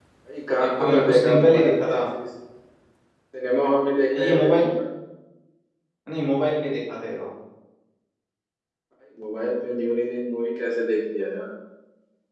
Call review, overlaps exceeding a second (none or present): present